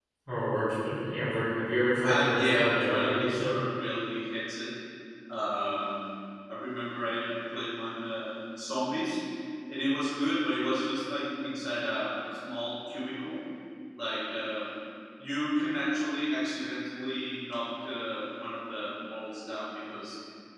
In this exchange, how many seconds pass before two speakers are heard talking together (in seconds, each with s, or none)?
2.0 s